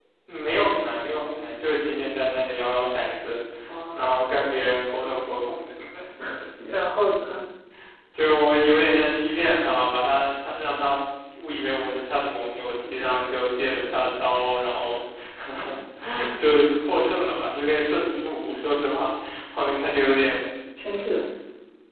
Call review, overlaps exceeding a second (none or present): none